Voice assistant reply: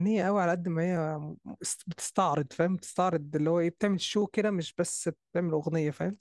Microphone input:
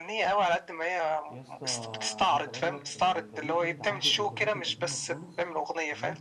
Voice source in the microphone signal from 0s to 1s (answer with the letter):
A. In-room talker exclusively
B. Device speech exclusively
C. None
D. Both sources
B